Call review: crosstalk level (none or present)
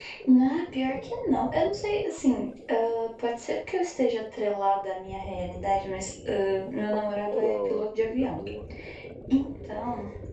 present